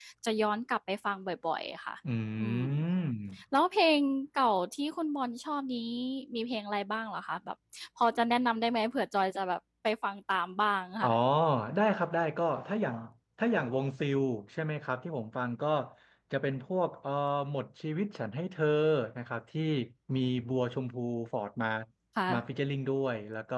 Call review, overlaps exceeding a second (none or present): none